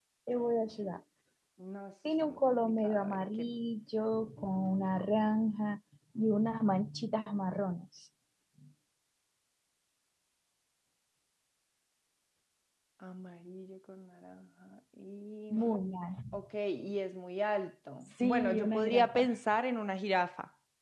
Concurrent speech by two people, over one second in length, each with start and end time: 2.2-3.4, 18.1-19.3

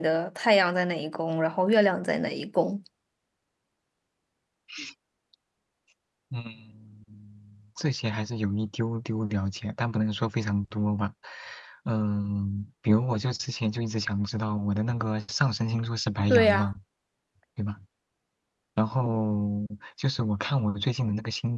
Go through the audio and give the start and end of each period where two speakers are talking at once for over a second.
none

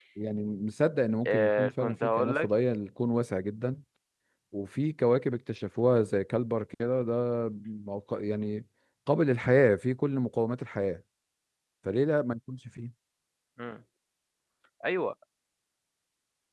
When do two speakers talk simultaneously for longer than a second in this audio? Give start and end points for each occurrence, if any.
1.3-2.5

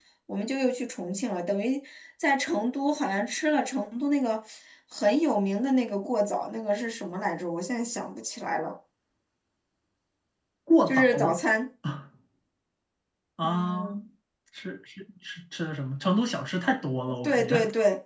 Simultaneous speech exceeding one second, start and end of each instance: none

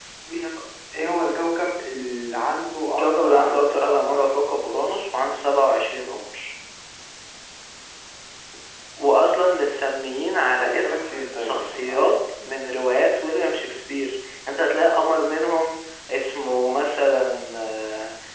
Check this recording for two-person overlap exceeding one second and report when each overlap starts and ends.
3.0-4.2, 10.6-12.1

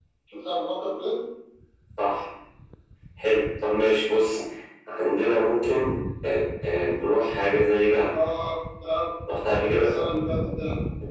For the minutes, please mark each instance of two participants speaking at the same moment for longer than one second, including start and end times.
none

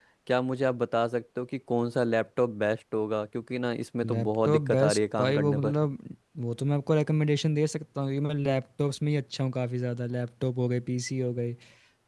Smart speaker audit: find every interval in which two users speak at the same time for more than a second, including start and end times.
4.0-5.8

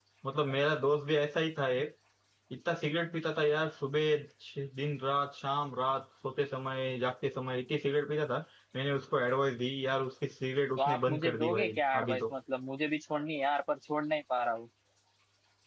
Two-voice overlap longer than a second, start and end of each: 10.8-12.3

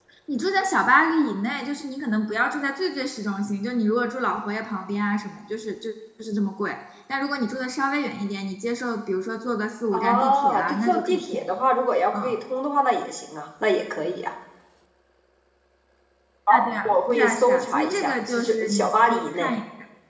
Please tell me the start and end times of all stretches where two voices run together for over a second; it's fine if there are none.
9.9-11.5, 16.8-19.5

